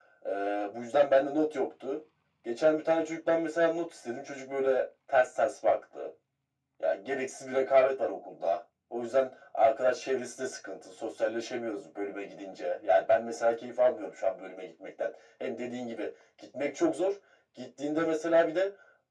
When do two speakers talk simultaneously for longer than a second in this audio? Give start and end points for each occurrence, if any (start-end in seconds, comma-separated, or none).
none